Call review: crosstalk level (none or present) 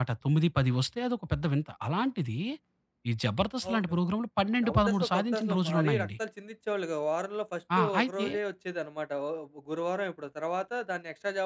present